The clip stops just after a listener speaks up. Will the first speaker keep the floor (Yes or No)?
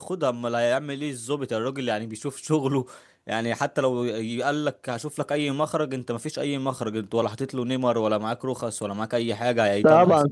No